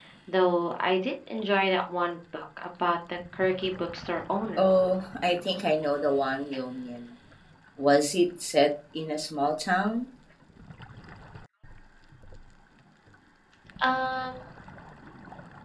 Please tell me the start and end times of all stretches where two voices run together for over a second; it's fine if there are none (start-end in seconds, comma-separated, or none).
none